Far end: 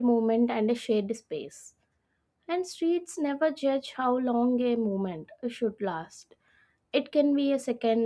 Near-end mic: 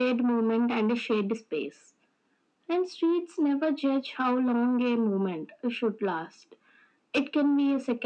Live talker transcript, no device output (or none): none